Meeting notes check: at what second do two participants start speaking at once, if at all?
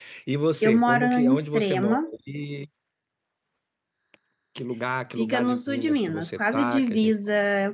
0.6 s

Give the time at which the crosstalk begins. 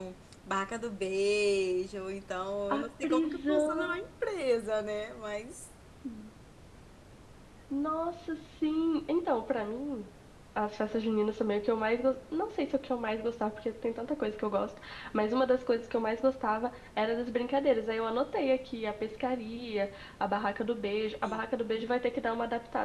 2.7 s

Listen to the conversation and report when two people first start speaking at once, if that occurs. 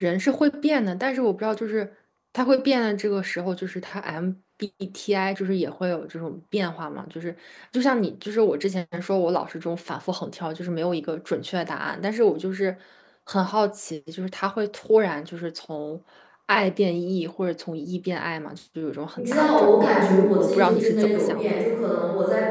19.2 s

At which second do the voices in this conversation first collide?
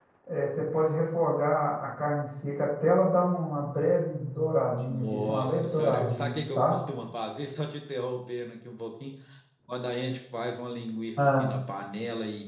4.7 s

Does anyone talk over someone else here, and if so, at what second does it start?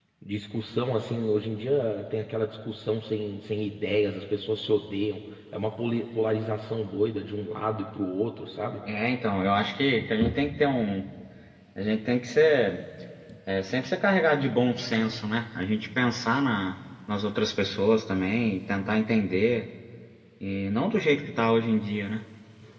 none

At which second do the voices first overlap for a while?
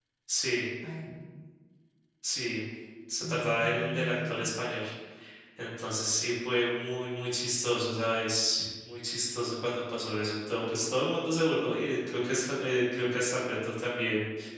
3.2 s

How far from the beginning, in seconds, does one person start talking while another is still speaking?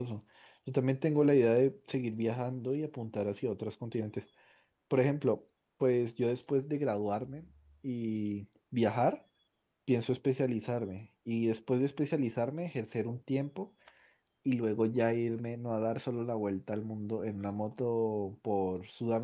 none

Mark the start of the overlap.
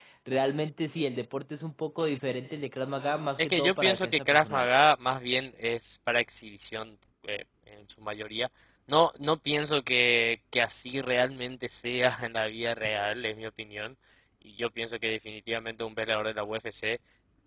3.4 s

